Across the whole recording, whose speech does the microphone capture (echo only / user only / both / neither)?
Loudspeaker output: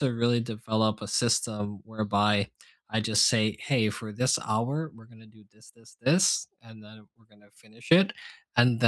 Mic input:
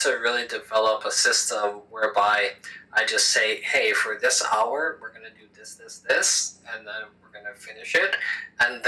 echo only